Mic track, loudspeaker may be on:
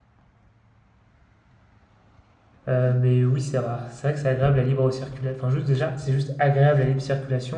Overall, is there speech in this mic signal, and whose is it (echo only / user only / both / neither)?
user only